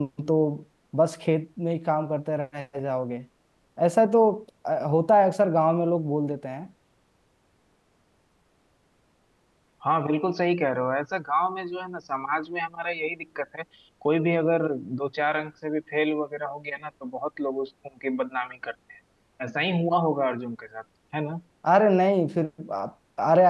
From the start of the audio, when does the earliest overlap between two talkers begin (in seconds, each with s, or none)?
none